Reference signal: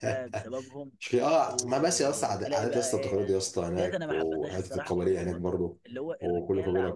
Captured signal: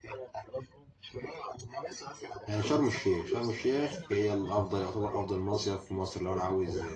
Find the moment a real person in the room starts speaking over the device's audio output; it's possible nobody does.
2.5 s

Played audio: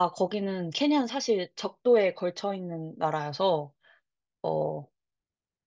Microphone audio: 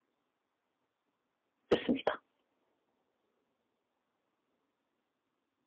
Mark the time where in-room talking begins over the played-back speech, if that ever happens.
1.7 s

